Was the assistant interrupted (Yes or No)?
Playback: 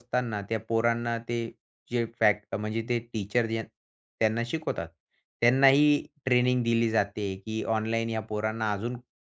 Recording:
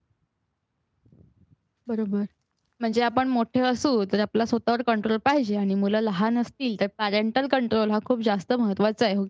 Yes